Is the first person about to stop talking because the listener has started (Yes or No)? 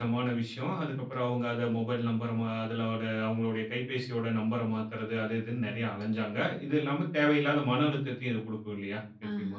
Yes